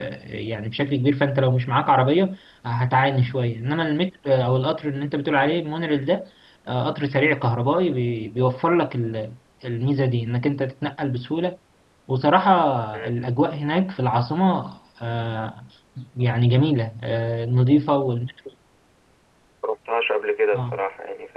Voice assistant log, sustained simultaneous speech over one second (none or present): none